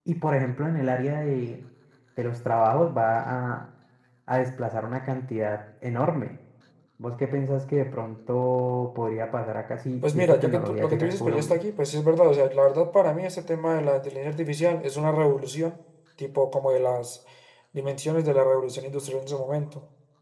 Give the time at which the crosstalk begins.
10.0 s

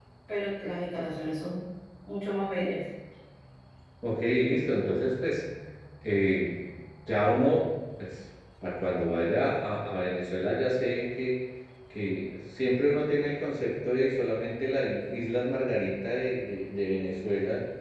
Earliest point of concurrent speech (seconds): none

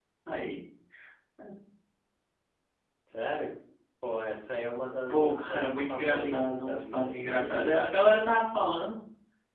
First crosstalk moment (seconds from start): 5.1 s

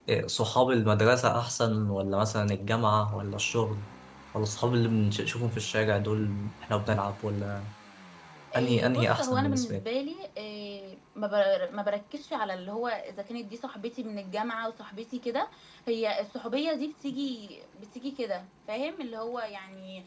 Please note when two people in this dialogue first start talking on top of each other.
8.6 s

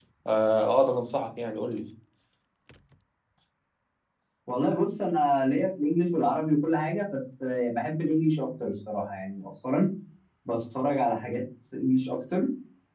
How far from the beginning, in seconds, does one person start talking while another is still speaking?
none

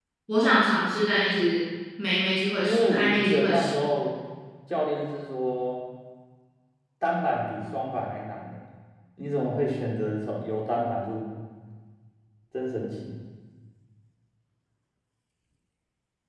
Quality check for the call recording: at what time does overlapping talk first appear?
2.6 s

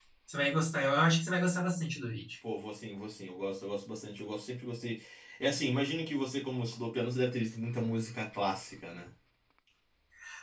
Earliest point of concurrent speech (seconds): none

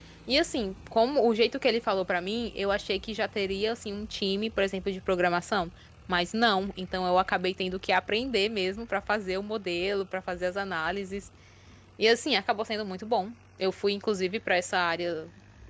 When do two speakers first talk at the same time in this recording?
none

